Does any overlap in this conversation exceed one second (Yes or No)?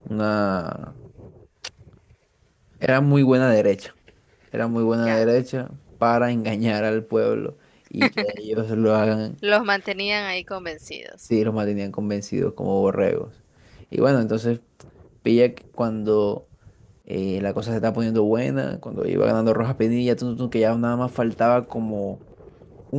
No